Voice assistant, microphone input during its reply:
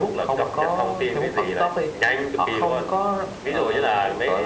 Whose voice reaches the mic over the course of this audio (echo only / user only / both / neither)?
echo only